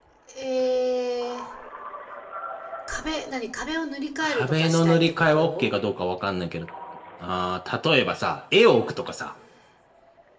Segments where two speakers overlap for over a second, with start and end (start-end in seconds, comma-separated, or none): 4.2-5.8